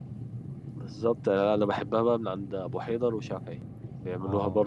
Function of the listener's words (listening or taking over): listening